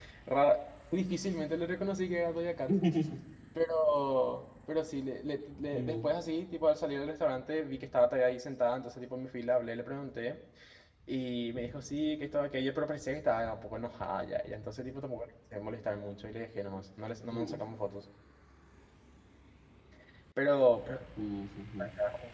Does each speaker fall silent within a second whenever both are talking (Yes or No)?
Yes